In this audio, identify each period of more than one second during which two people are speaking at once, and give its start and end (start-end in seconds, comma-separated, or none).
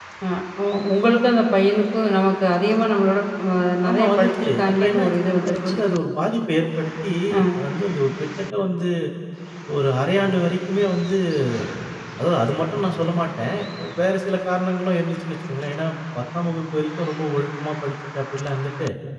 3.9-5.8